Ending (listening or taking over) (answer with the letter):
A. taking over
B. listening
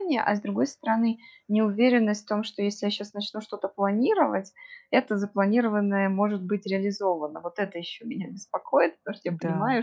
B